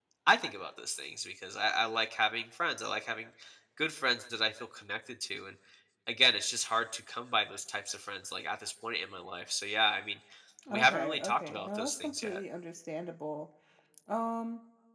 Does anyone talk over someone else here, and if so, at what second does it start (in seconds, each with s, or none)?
10.7 s